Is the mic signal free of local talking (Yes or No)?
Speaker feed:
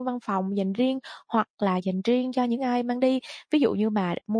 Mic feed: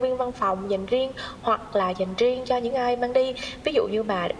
Yes